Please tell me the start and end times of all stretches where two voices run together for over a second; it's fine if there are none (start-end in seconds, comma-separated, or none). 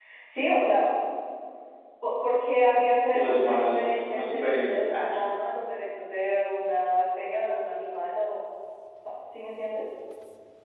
3.1-5.1